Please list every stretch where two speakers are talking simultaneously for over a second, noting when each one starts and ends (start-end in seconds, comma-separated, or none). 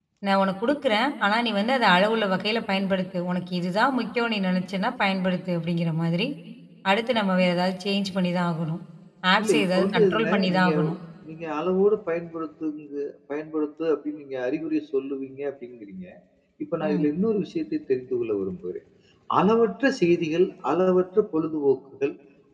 9.4-10.9